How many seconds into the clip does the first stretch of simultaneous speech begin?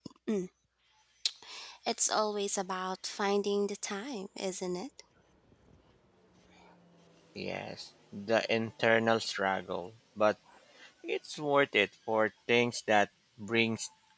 none

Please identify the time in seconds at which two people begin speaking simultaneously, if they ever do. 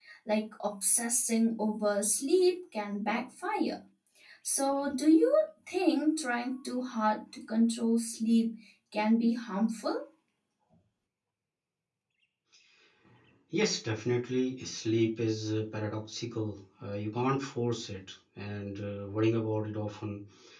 none

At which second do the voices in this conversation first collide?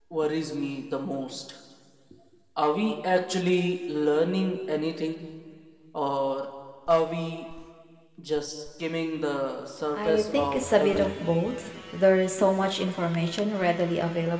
9.9 s

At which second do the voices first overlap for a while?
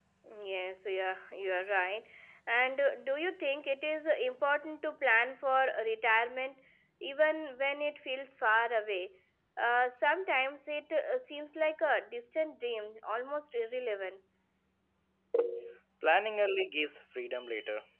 none

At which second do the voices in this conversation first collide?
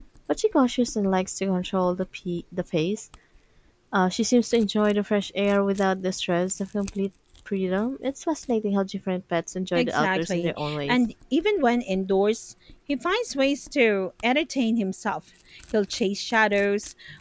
9.8 s

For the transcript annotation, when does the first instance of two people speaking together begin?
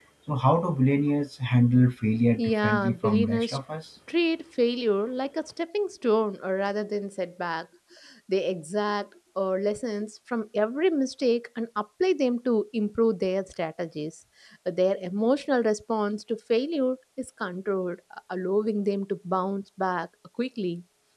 2.4 s

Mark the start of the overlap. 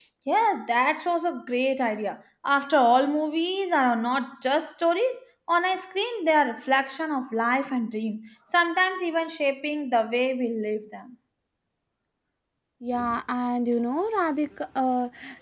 none

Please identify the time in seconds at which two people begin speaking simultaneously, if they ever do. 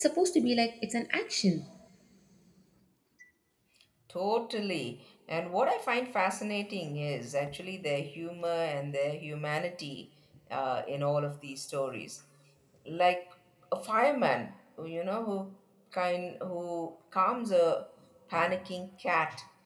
none

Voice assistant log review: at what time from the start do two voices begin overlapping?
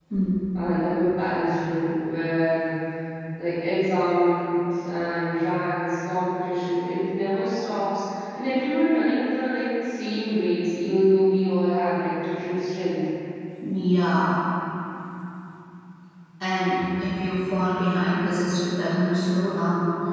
none

